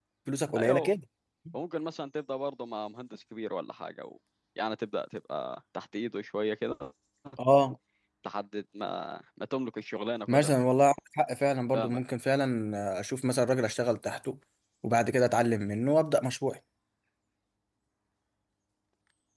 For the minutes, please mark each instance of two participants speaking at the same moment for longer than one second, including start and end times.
none

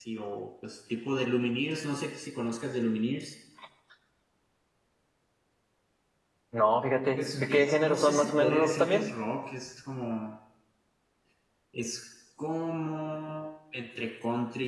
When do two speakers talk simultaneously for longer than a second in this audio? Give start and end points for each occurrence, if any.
7.2-9.0

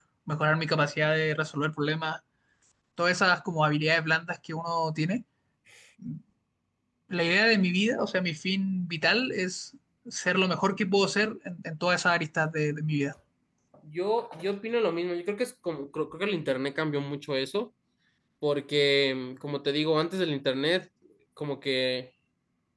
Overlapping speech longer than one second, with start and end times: none

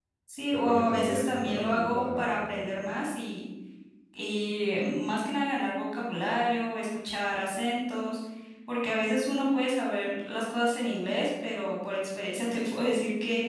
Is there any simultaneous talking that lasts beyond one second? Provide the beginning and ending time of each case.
0.5-2.7

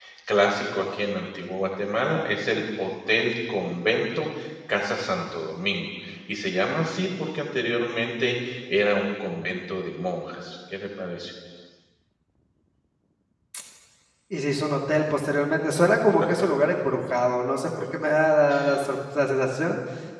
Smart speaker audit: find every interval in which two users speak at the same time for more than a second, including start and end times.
none

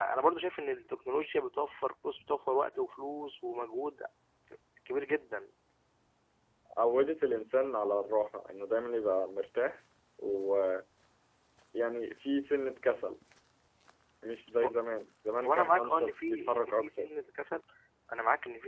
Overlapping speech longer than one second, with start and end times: 15.4-17.1

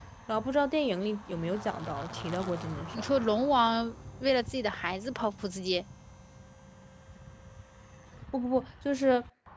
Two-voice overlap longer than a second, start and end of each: none

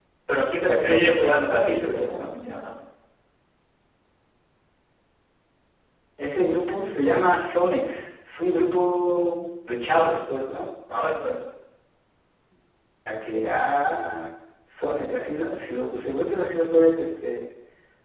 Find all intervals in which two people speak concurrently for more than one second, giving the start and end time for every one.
0.8-2.3

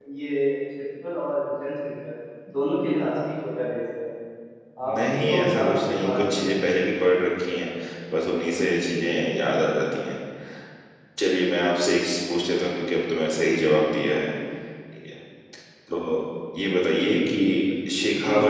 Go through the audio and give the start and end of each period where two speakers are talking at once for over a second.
5.1-6.5

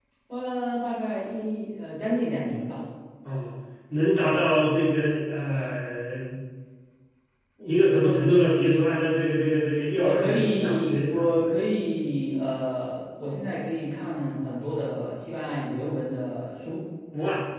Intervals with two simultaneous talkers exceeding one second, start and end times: 10.0-11.3

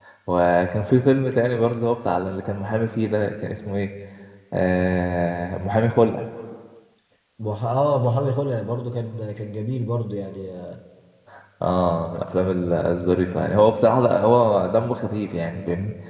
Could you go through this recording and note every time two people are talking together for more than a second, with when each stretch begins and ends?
none

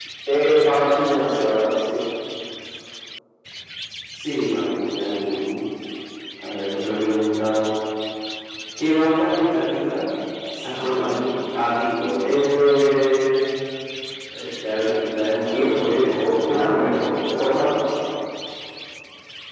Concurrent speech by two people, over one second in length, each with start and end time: 15.5-17.0

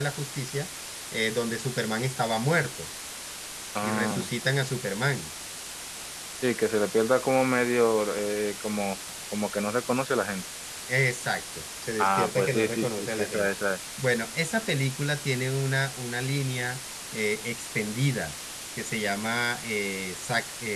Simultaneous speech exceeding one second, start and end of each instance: 12.0-13.5

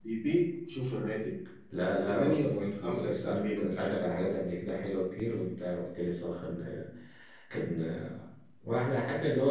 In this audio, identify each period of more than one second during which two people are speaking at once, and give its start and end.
1.8-4.0

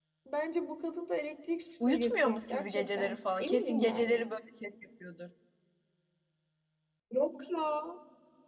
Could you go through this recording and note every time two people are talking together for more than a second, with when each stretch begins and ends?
1.9-4.3

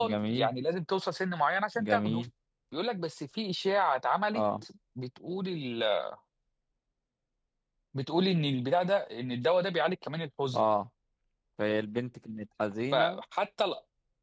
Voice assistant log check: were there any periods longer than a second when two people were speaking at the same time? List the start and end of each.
none

